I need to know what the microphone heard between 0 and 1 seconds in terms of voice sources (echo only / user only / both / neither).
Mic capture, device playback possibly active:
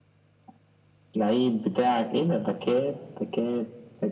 neither